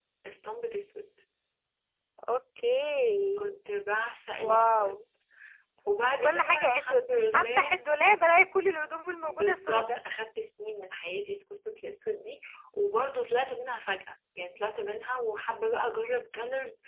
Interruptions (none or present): present